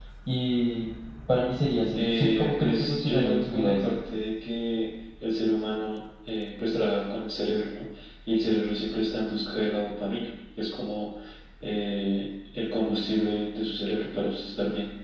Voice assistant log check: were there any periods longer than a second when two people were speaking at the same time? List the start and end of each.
1.9-3.7

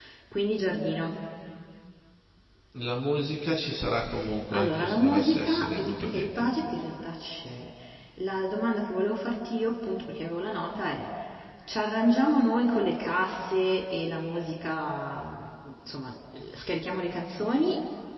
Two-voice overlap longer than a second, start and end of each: 4.5-6.5

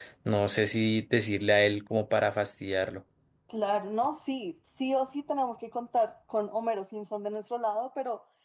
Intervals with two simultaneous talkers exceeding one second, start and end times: none

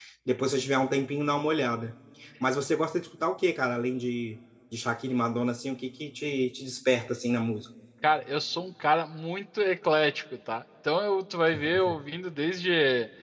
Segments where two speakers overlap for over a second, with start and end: none

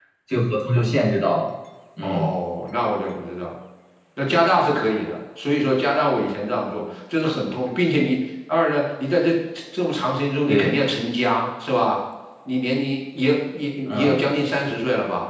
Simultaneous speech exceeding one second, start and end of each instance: none

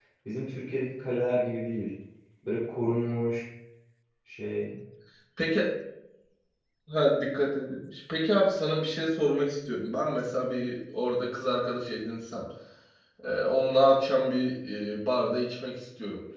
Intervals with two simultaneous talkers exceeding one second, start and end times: none

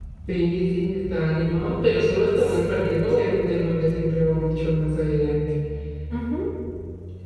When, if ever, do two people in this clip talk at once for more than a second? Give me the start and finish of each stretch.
2.4-3.7

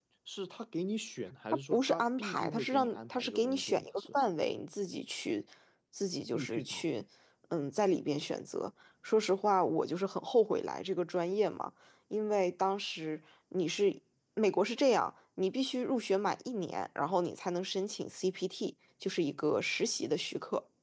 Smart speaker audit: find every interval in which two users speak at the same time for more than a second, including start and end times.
1.7-4.2

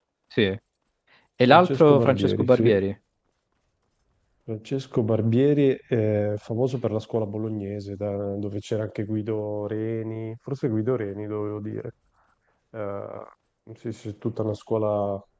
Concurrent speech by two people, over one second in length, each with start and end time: 1.5-2.7

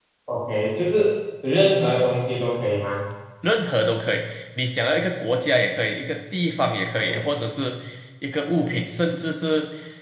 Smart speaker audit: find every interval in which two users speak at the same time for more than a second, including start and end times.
none

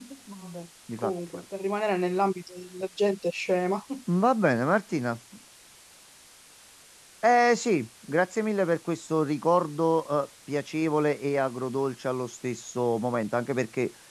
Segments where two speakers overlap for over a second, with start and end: none

